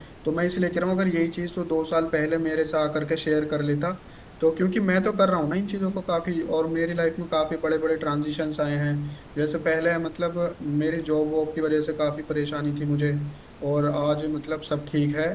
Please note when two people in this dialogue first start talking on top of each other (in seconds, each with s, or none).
none